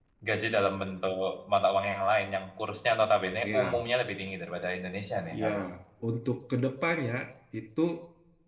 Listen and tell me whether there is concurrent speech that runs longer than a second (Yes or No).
No